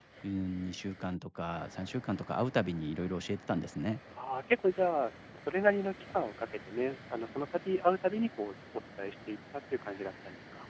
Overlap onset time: none

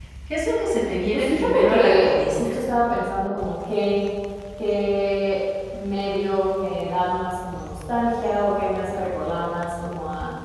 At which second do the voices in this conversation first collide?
1.1 s

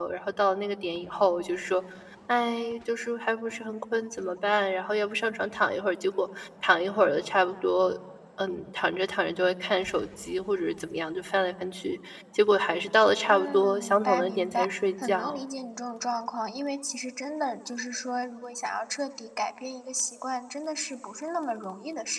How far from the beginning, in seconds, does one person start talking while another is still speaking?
13.3 s

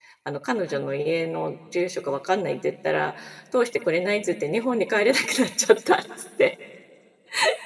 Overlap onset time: none

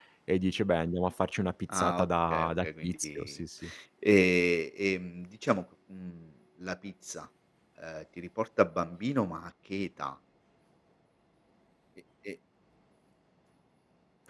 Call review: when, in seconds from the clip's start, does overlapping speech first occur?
1.7 s

